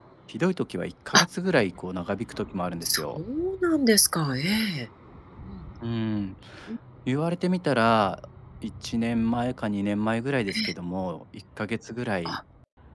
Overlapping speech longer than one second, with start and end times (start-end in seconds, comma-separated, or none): none